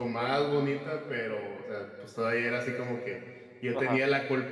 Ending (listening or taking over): listening